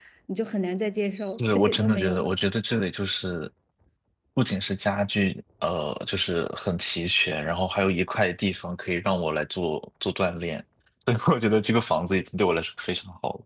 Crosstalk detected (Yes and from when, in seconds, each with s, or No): Yes, from 1.2 s